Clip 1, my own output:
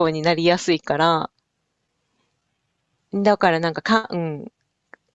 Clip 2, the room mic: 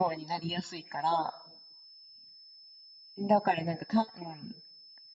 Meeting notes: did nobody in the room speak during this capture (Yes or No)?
Yes